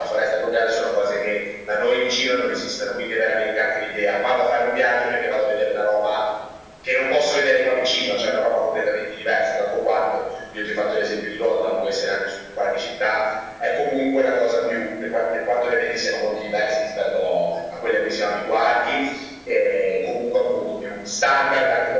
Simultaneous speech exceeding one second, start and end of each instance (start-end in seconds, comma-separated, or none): none